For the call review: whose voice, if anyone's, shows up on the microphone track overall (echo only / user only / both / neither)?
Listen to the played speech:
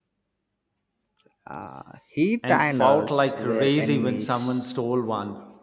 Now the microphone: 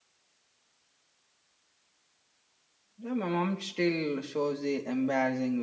user only